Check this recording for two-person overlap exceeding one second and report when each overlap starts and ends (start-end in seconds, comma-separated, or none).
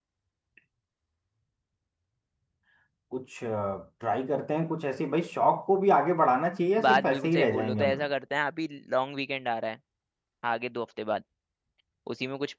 6.8-8.1